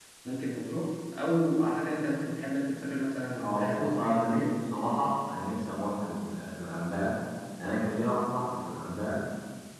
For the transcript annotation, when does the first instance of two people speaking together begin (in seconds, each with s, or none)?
3.3 s